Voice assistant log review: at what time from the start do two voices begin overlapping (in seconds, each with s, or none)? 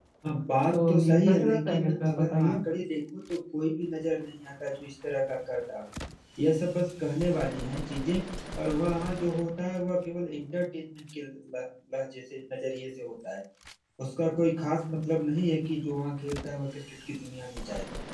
0.7 s